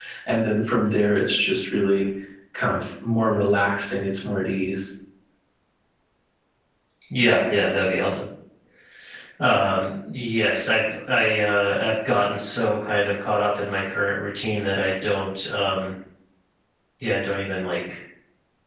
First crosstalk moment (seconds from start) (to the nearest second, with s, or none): none